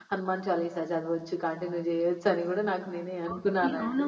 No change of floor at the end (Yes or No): No